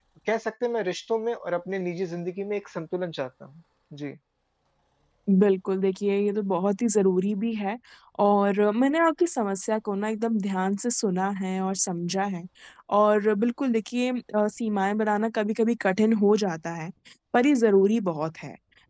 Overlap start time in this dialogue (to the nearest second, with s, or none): none